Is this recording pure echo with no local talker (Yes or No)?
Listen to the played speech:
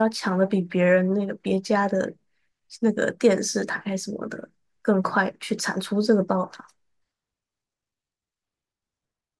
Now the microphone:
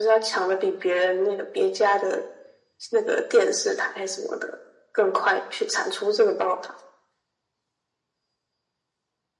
Yes